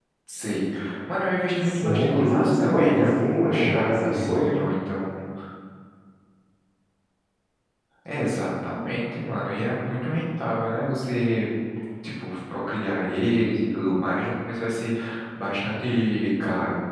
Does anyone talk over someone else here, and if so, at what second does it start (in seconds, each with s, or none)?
1.6 s